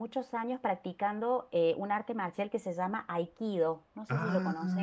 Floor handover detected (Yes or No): Yes